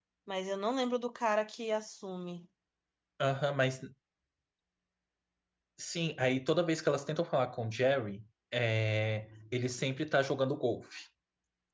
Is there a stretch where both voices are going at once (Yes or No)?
No